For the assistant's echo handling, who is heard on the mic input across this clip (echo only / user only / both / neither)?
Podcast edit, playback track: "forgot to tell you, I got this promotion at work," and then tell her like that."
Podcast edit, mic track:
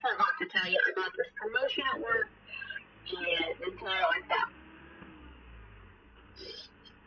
echo only